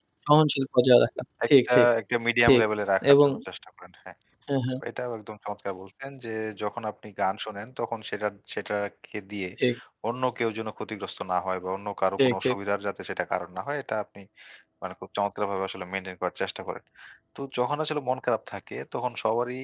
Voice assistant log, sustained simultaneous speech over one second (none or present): none